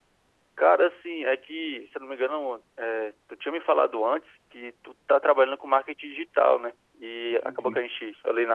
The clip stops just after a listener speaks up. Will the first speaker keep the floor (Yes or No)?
Yes